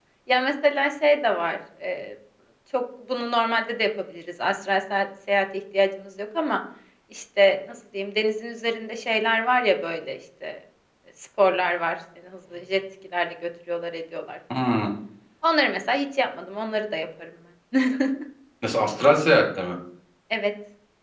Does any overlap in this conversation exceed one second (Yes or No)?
No